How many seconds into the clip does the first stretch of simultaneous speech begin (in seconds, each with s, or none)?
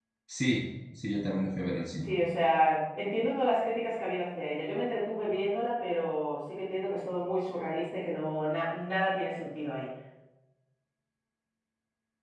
none